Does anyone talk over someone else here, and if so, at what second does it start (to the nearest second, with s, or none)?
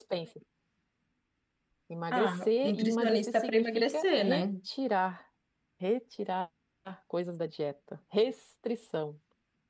2 s